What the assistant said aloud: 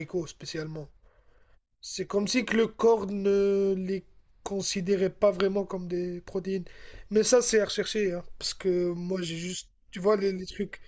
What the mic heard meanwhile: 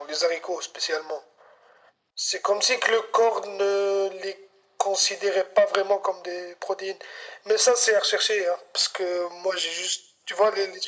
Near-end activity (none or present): none